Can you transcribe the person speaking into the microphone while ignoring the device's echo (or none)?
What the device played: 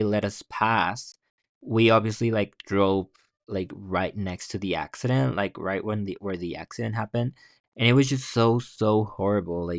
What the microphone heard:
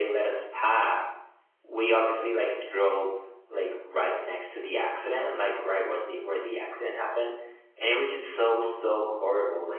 none